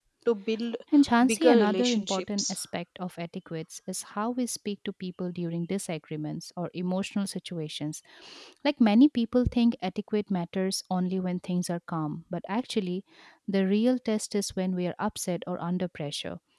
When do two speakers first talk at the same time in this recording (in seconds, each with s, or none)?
1.2 s